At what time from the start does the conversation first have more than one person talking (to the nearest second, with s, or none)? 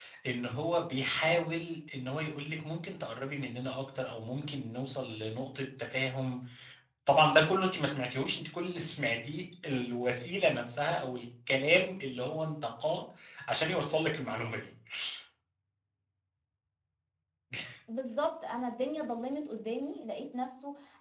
none